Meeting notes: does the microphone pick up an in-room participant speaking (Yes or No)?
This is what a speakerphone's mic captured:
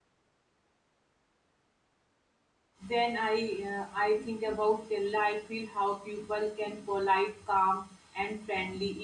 Yes